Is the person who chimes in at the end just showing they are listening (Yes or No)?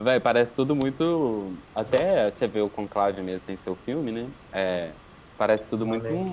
Yes